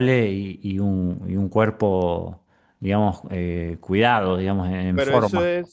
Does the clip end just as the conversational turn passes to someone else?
Yes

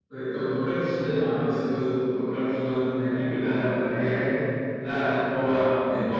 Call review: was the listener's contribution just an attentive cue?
No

